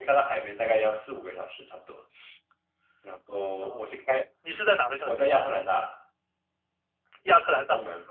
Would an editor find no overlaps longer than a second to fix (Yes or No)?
Yes